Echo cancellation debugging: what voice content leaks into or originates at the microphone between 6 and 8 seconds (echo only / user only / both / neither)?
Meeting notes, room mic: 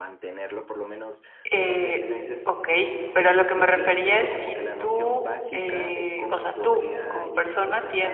both